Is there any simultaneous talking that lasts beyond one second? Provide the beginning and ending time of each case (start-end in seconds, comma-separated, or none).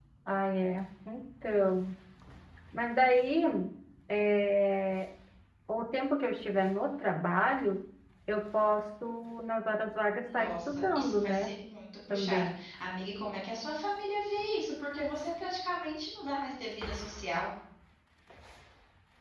10.3-11.5